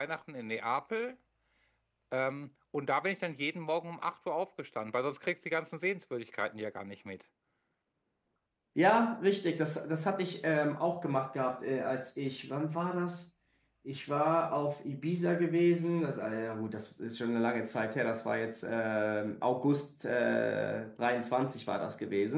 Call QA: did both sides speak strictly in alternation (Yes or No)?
Yes